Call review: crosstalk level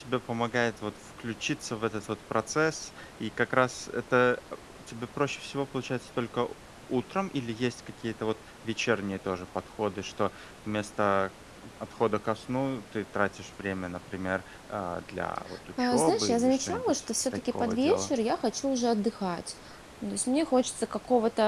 present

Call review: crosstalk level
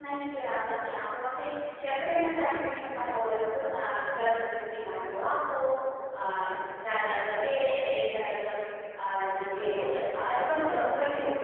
present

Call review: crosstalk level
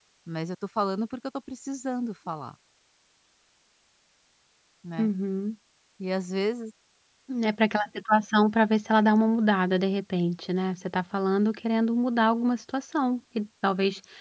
none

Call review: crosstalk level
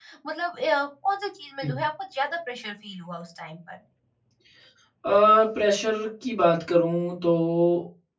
none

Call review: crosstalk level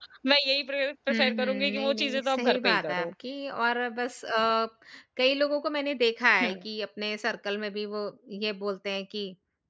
present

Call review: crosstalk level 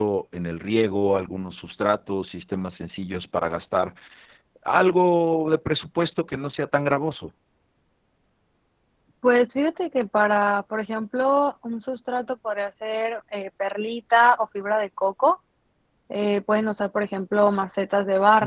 none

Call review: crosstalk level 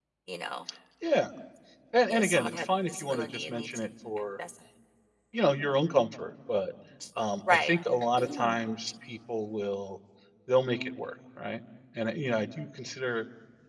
present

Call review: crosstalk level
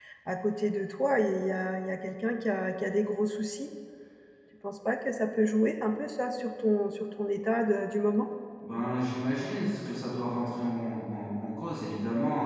none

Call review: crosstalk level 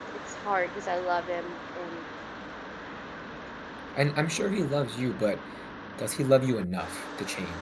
none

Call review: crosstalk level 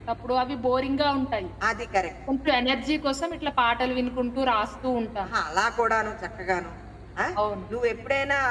none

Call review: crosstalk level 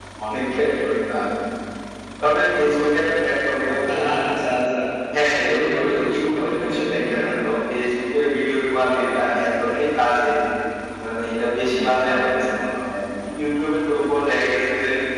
present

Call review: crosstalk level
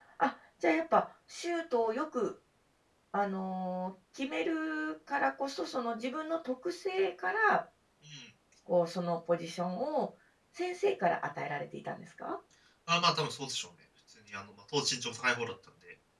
none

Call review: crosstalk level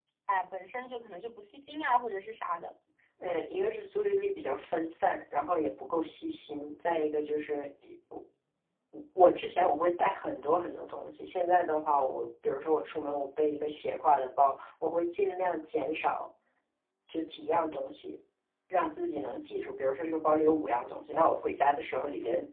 none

